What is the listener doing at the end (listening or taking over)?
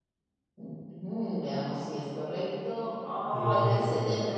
listening